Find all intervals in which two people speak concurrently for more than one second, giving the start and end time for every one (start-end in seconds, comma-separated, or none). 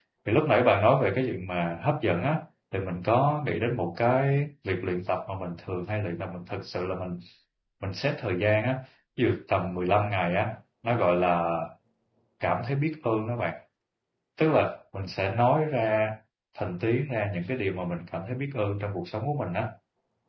none